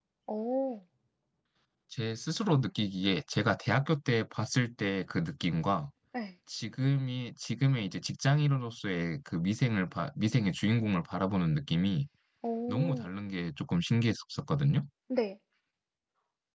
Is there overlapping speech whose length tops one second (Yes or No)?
No